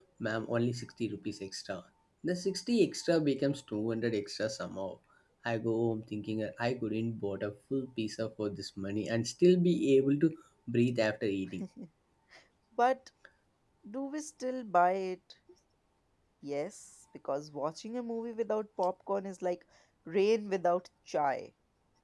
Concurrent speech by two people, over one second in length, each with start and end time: none

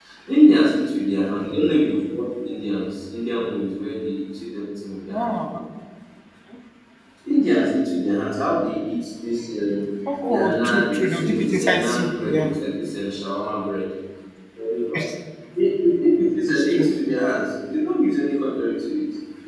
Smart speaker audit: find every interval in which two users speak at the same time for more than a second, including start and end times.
10.3-12.5

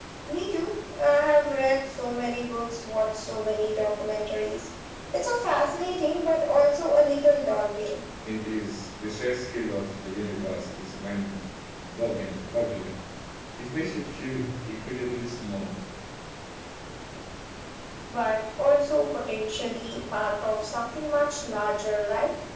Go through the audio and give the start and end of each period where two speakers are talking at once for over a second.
none

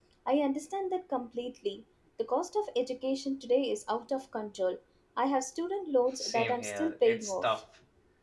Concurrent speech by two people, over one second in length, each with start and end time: 6.2-7.4

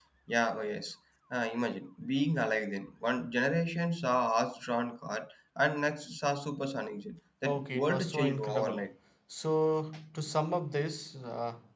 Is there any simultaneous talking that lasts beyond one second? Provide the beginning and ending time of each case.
7.4-8.9

